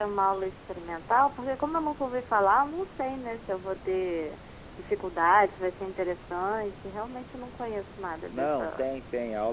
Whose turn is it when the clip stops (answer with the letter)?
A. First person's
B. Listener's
B